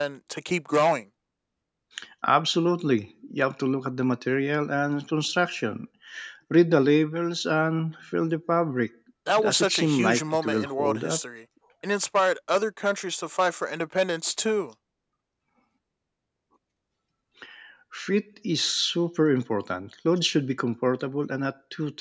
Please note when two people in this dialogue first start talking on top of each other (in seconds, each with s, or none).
9.4 s